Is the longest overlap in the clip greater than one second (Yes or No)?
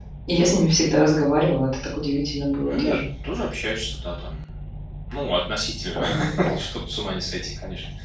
No